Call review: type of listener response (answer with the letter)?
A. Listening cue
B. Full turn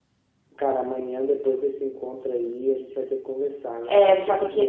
B